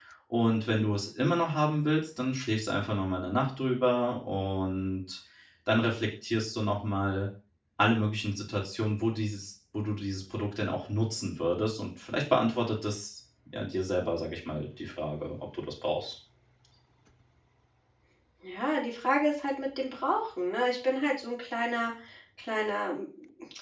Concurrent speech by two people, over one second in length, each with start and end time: none

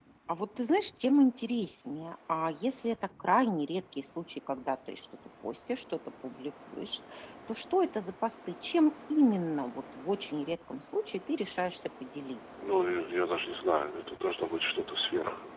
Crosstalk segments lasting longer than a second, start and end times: none

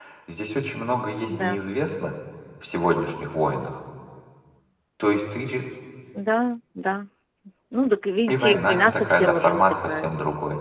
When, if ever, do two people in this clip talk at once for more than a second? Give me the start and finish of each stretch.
8.3-10.1

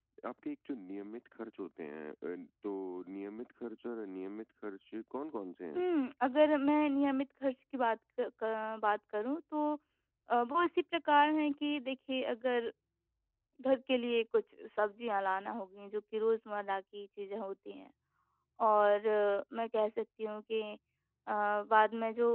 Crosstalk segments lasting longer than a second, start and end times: none

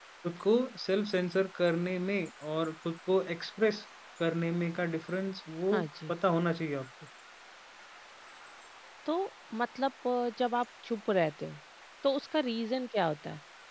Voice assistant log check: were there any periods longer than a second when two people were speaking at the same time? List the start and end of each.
none

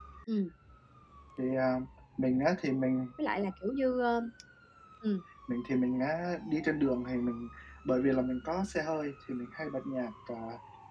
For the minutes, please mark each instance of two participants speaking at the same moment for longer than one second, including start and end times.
none

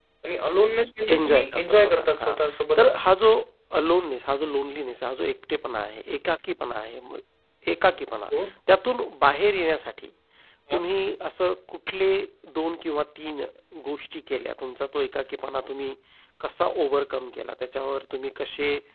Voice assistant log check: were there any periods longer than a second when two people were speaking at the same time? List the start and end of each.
1.1-2.4

